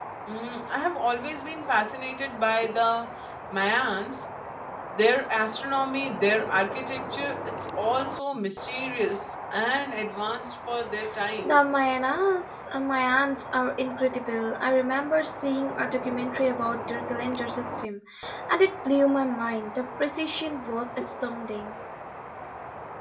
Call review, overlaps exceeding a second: none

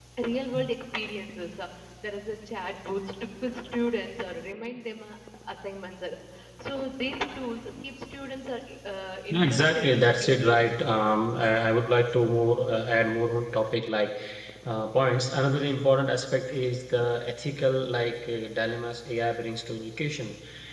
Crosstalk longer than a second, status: present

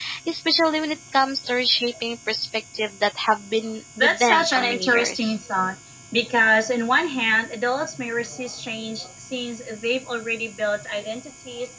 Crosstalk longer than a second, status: present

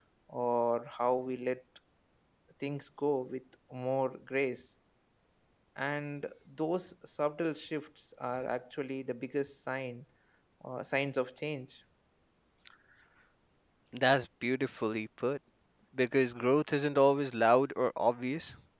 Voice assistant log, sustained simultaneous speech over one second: none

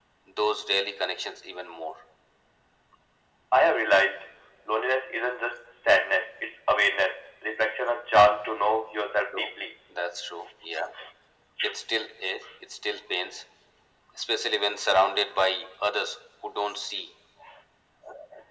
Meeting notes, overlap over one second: none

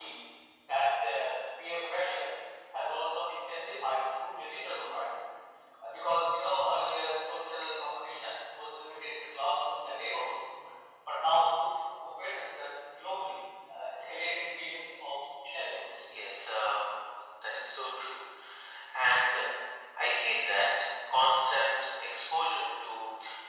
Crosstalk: none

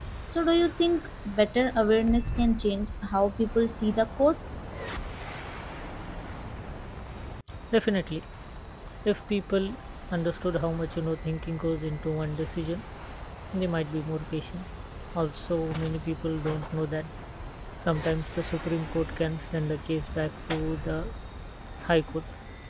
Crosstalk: none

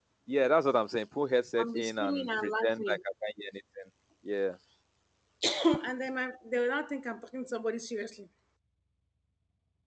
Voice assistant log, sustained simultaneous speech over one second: present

